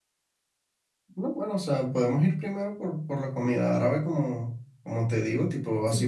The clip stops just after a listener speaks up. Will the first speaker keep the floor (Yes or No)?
Yes